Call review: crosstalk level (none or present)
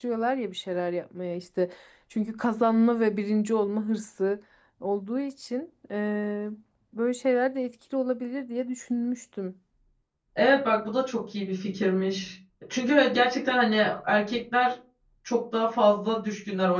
none